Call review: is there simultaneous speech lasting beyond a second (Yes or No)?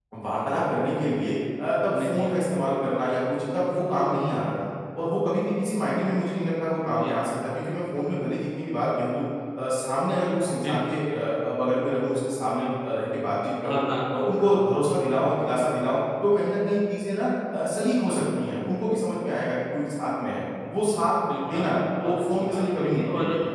Yes